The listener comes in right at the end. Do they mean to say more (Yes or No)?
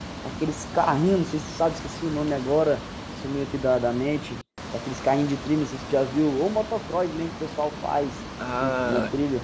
Yes